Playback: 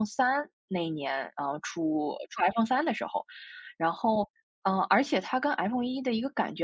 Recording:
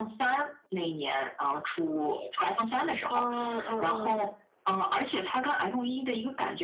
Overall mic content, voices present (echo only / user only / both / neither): both